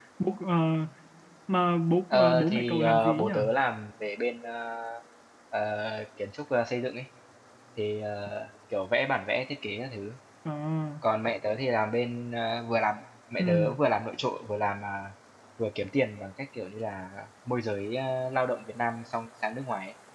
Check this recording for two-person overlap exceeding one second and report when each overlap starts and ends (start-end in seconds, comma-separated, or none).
2.1-3.3